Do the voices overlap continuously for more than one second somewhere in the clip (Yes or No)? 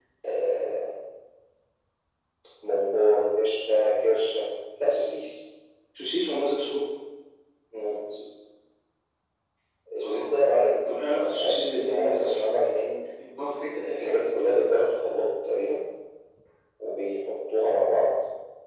Yes